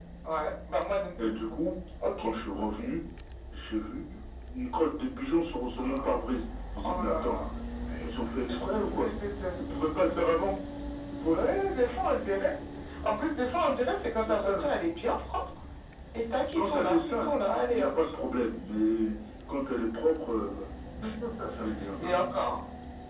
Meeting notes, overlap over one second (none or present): present